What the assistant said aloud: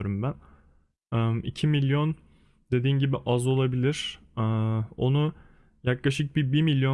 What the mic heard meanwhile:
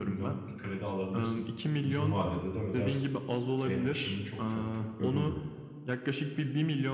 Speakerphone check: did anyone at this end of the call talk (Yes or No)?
Yes